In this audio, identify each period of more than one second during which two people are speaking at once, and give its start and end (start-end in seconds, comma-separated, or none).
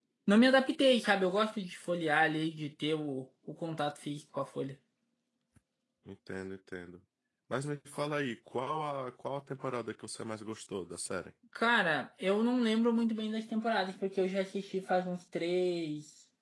none